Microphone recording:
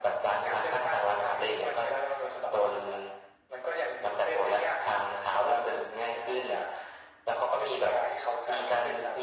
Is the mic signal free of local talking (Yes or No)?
Yes